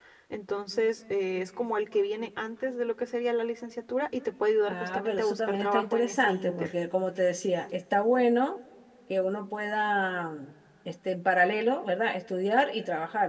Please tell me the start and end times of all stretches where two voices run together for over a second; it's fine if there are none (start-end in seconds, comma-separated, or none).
4.7-6.7